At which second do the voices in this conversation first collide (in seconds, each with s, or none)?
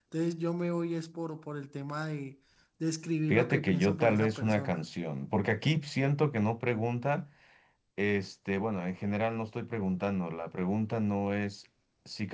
3.3 s